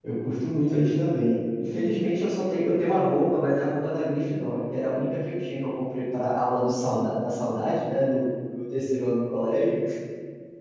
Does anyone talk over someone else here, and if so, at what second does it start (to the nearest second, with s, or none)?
none